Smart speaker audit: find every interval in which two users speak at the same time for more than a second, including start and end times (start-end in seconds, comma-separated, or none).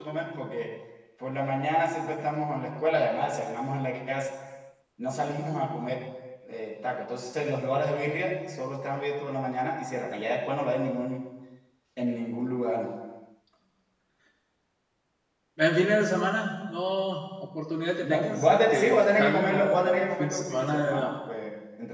18.0-21.0